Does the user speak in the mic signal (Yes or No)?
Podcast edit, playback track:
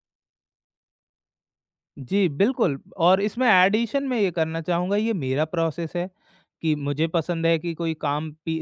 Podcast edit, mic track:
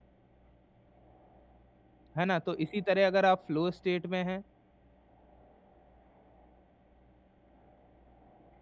Yes